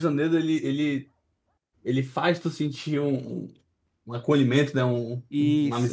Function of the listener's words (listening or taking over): taking over